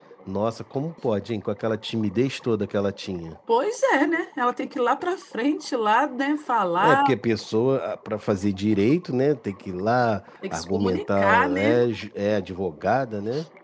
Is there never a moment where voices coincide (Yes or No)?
No